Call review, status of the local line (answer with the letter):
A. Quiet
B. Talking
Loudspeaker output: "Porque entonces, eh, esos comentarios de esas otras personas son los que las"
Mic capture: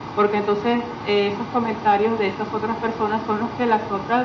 A